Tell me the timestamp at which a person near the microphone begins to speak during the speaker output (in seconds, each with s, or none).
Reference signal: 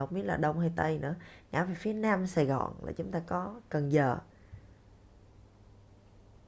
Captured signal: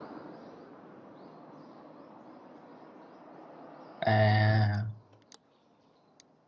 4.0 s